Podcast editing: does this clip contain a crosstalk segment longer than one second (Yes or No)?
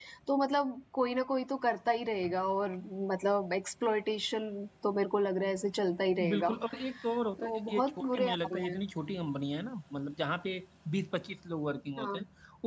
Yes